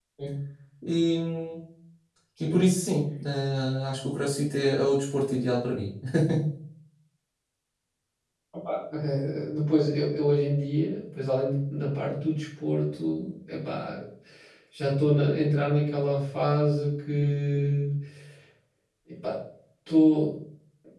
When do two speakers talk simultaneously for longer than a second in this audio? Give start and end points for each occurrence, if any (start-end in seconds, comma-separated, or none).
none